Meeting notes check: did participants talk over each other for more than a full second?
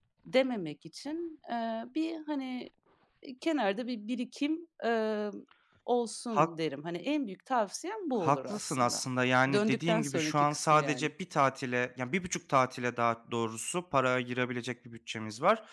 Yes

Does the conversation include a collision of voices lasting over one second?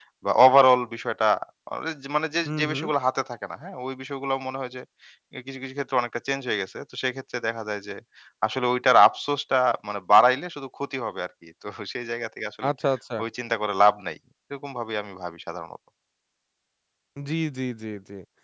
No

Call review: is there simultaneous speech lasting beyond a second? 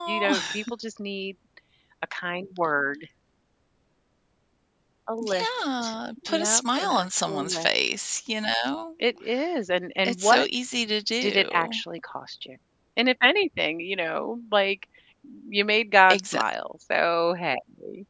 Yes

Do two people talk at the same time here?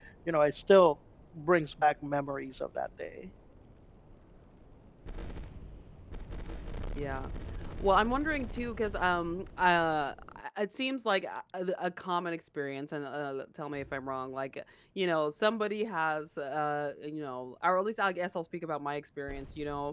No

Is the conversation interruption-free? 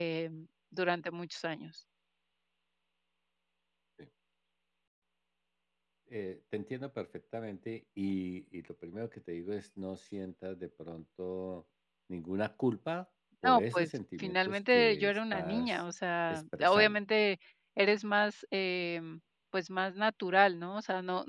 No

